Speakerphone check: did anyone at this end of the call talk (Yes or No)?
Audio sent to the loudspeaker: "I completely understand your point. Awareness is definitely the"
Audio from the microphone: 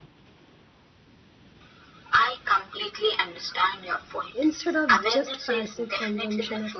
Yes